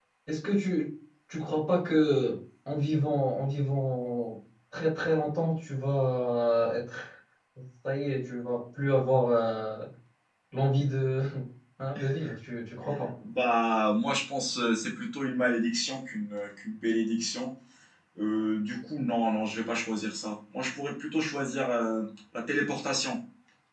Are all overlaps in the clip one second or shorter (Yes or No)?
Yes